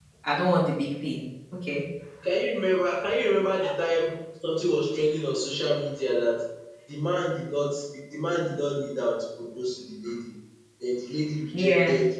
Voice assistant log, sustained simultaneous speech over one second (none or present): none